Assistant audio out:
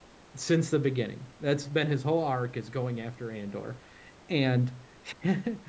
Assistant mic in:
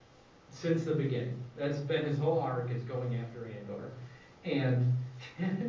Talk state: echo only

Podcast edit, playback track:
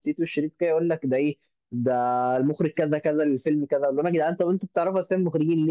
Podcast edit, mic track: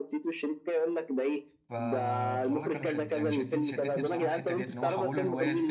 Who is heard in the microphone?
both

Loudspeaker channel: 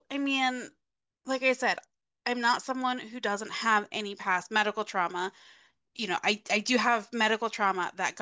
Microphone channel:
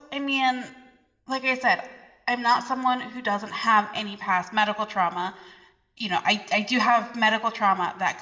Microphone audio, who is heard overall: echo only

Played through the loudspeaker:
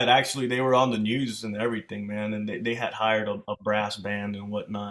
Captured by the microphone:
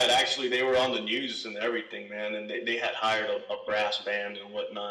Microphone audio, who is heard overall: echo only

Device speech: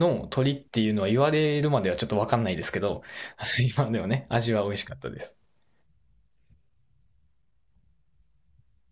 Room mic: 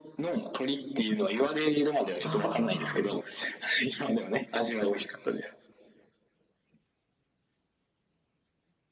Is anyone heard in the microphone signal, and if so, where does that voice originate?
both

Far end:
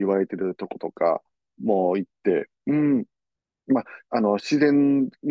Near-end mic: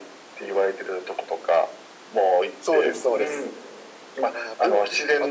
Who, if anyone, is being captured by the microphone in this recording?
both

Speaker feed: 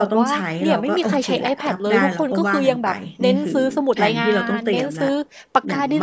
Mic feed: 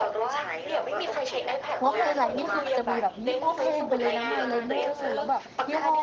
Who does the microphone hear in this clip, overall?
both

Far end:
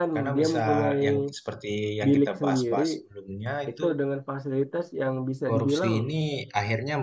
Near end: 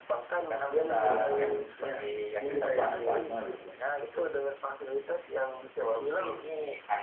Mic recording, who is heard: both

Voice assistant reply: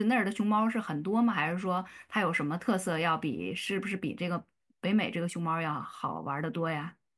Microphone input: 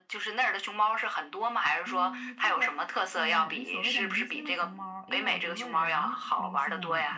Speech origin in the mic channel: both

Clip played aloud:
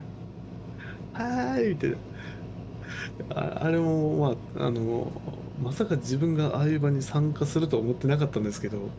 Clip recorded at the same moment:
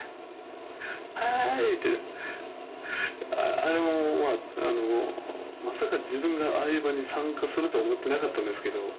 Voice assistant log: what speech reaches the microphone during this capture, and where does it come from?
echo only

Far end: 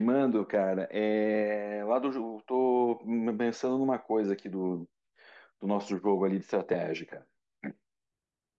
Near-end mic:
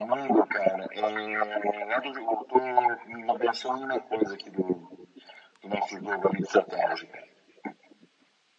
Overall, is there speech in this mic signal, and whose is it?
echo only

